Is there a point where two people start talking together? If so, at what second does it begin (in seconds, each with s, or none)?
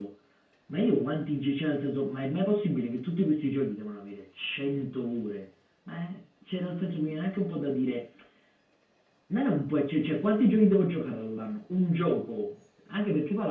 none